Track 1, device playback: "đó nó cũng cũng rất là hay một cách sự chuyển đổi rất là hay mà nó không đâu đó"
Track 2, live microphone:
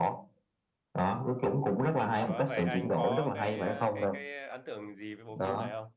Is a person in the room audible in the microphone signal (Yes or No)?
Yes